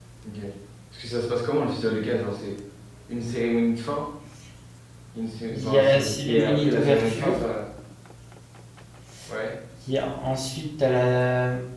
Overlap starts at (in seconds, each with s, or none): 5.5 s